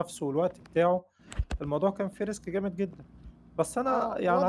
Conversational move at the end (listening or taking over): taking over